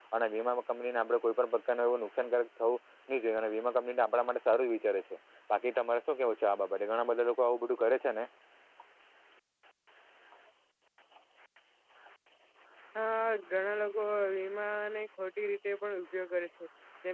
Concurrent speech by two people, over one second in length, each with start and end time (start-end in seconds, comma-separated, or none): none